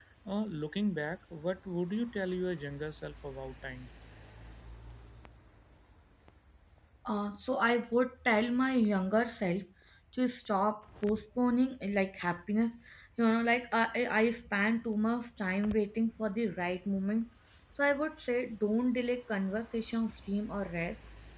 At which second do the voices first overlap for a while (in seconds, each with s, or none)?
none